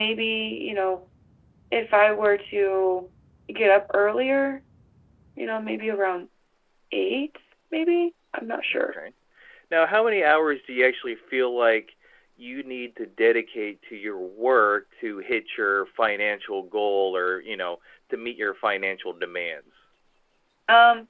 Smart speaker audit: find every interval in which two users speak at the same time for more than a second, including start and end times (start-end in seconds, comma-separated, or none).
none